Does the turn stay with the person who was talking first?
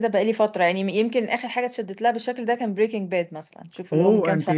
No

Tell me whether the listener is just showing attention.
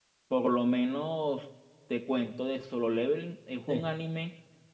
Yes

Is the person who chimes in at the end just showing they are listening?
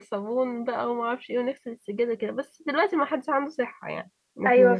No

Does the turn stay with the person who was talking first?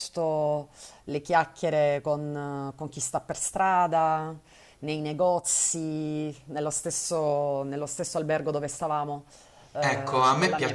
No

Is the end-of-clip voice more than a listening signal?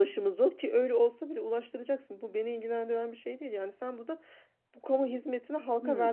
Yes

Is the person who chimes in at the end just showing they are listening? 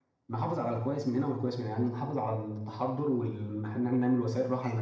Yes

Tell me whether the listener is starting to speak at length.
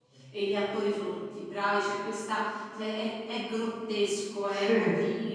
No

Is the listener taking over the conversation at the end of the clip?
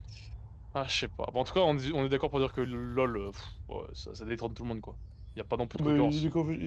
Yes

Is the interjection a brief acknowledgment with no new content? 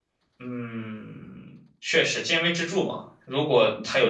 Yes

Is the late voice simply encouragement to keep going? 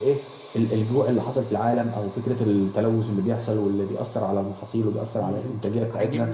No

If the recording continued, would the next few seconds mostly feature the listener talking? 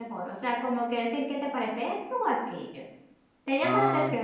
Yes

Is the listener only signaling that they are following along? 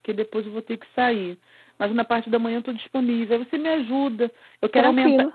Yes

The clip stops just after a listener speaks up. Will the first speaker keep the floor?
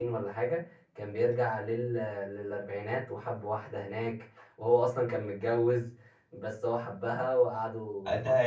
No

